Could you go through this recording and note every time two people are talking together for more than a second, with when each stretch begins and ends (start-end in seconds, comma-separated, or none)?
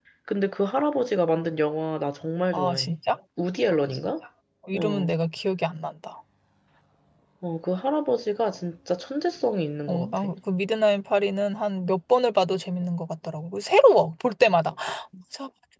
none